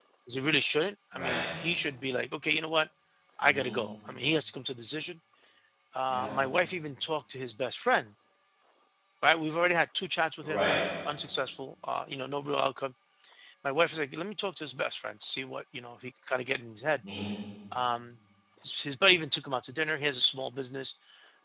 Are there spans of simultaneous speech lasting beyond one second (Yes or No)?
No